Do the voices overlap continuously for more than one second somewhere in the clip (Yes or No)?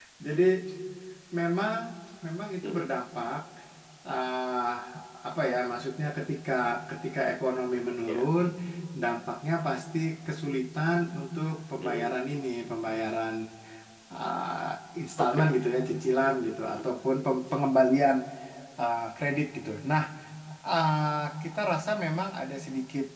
No